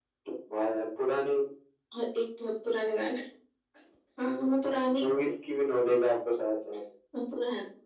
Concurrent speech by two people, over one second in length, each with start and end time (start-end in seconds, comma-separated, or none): none